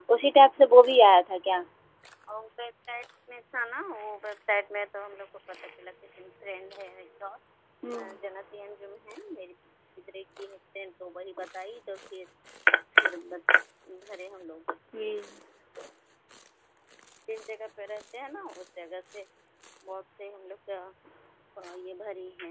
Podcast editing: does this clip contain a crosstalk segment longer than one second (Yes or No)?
No